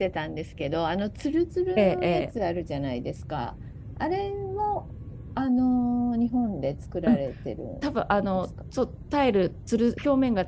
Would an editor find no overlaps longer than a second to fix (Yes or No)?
Yes